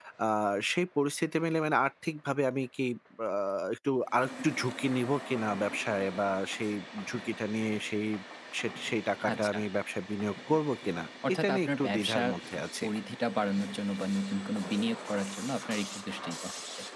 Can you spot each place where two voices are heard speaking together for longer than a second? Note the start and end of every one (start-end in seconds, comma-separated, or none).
11.3-12.8